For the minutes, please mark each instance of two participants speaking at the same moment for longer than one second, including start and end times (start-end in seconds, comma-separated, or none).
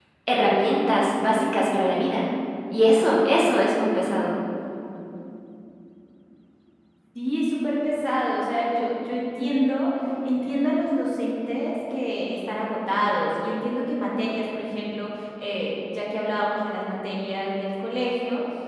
none